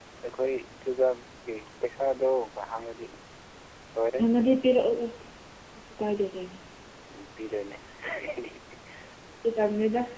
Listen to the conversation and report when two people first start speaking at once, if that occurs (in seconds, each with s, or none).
none